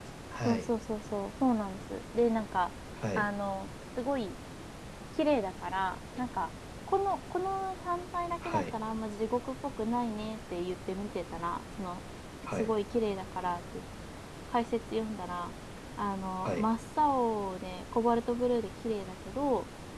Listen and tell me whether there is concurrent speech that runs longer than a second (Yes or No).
No